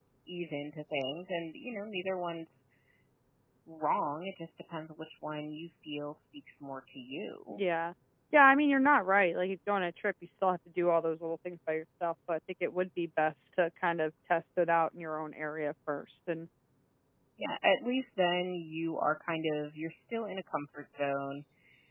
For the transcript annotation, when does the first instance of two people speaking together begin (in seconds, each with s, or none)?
none